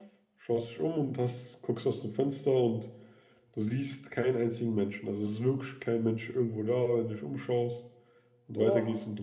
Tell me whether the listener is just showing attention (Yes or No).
Yes